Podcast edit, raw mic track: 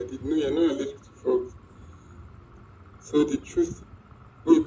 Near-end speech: none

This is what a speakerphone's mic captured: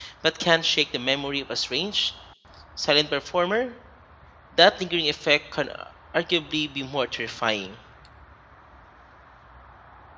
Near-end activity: present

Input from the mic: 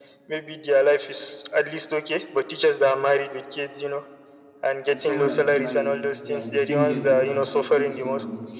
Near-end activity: present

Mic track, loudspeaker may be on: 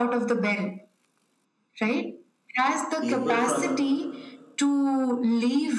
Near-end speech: present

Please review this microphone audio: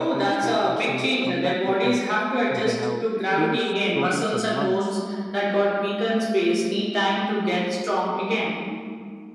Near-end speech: present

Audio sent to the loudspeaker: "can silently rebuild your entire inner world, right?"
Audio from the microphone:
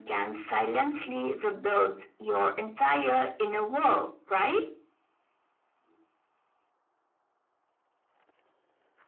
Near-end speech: none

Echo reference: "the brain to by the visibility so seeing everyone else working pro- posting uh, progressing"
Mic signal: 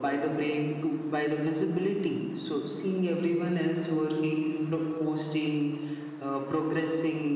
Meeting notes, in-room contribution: none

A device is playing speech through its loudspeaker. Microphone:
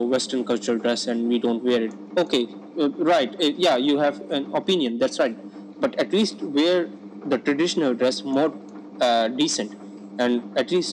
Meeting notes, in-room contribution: none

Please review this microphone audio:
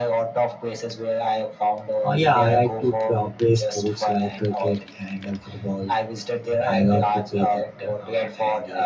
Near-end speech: present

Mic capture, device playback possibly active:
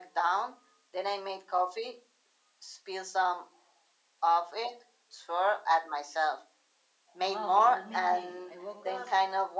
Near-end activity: present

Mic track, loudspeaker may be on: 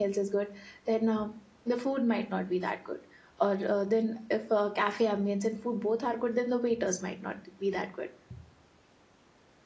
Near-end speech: present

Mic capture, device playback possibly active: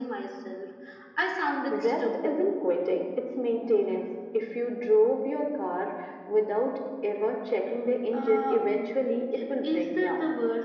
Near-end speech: none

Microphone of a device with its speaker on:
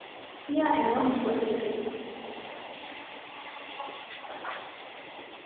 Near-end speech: present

